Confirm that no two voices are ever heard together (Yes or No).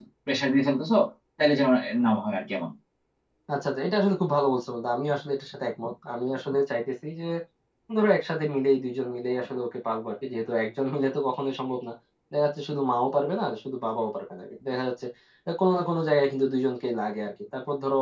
Yes